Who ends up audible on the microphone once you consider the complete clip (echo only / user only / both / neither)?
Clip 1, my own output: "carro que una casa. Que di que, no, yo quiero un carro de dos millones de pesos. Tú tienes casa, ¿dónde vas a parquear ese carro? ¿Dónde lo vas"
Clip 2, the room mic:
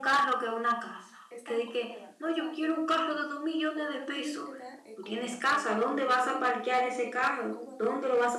both